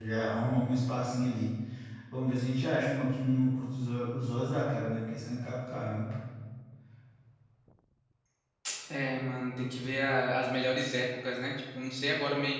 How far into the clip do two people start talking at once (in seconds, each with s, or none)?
none